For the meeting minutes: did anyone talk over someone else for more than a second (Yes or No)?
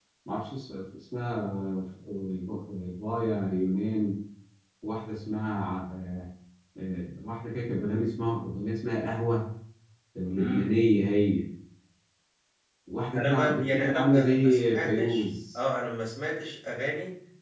Yes